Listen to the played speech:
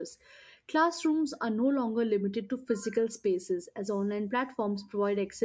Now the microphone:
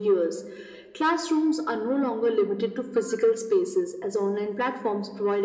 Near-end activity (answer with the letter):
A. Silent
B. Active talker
A